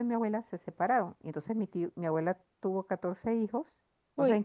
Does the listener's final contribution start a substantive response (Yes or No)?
No